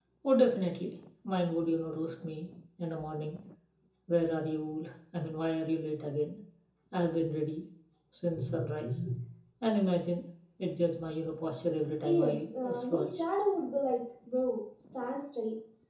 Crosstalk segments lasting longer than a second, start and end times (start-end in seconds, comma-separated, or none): 12.0-13.2